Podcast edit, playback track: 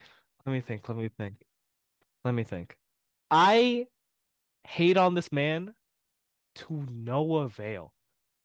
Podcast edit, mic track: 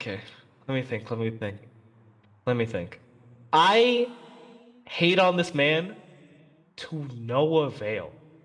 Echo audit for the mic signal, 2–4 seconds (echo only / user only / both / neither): echo only